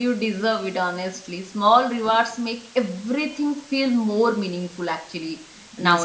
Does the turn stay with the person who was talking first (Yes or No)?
No